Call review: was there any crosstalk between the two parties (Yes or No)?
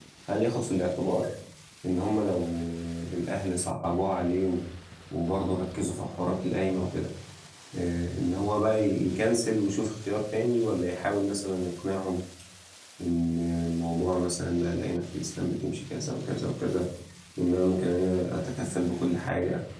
No